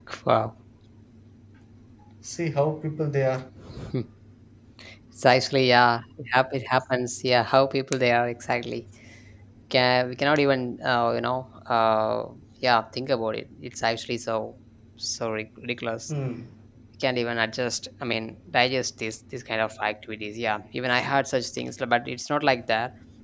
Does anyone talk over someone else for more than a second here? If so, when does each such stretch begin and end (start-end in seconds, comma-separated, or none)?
none